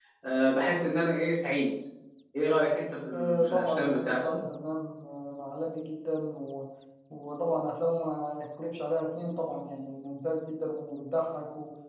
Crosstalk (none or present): present